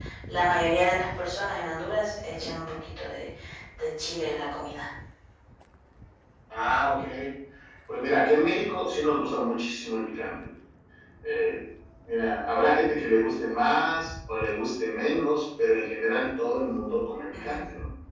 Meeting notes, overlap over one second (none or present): none